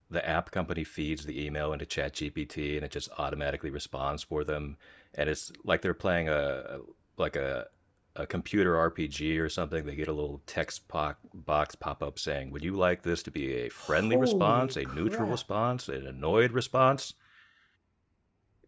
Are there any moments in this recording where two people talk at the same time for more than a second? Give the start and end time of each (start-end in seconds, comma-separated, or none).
13.8-15.4